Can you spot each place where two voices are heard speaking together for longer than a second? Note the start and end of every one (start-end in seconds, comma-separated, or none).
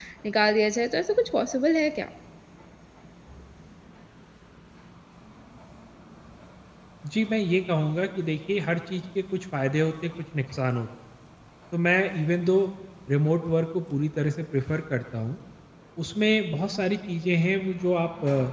none